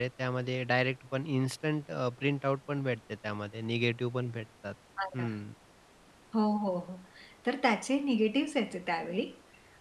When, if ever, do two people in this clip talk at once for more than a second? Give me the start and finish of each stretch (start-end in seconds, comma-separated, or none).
none